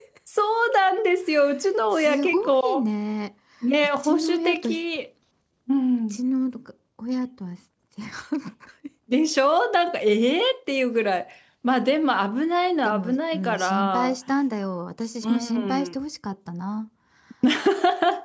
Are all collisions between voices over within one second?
No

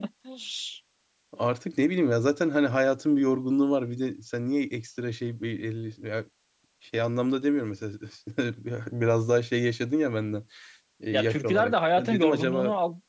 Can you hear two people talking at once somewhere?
Yes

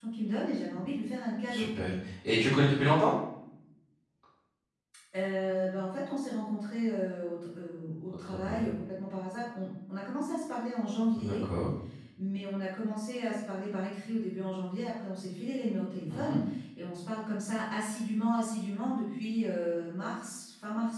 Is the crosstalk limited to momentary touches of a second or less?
Yes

